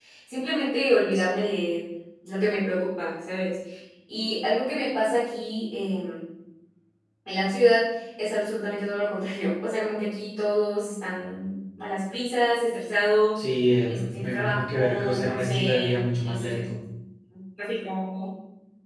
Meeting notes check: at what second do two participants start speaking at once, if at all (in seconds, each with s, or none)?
13.9 s